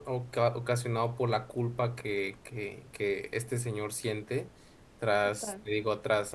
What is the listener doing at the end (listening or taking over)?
listening